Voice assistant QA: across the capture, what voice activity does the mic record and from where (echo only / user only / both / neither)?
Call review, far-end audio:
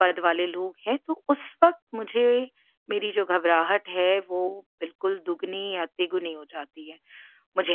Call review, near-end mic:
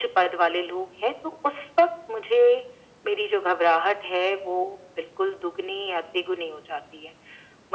echo only